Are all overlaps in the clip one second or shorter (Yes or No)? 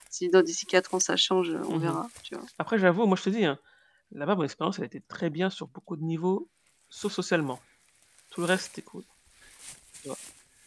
Yes